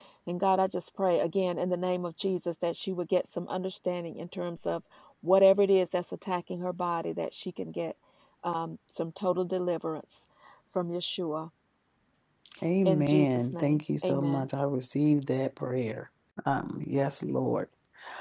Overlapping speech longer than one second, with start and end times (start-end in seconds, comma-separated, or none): 12.8-14.4